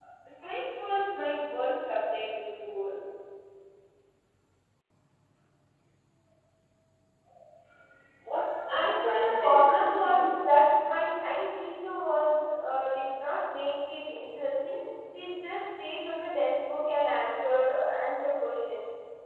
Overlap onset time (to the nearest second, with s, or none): 9 s